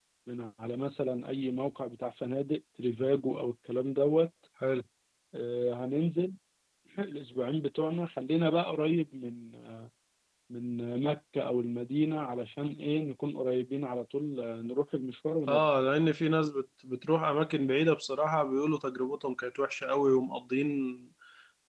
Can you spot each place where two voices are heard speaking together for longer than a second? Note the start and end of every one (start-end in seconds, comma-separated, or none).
none